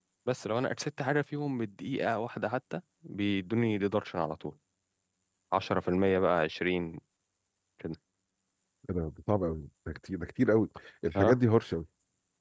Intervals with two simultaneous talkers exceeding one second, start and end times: none

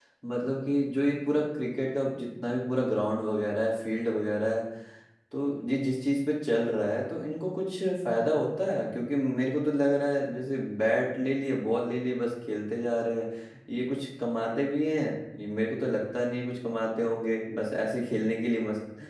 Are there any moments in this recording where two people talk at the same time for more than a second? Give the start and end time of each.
none

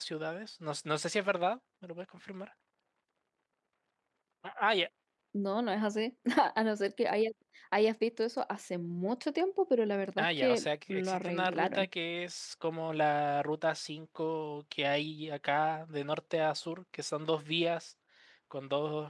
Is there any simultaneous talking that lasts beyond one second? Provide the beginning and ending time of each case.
10.2-11.8

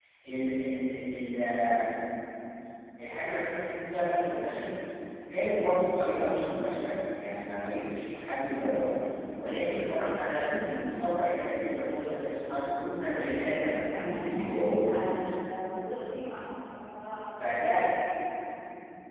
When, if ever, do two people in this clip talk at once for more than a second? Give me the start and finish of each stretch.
13.9-15.2

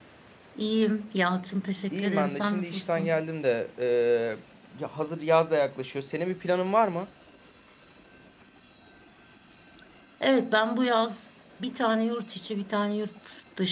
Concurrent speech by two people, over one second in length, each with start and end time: 1.9-3.2

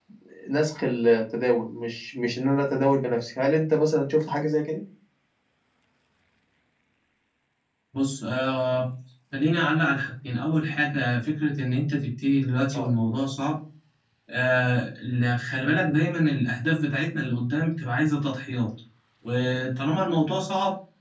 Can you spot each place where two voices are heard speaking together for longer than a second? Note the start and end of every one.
none

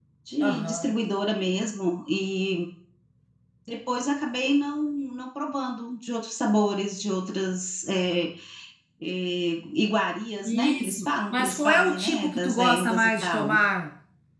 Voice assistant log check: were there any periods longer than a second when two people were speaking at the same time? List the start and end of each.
10.4-13.6

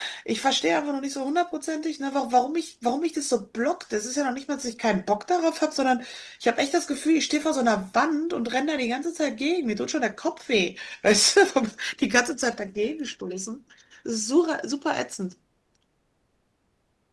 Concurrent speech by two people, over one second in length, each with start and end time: none

